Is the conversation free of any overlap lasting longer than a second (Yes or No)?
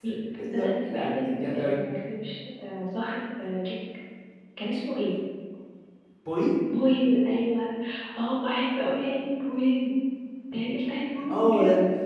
No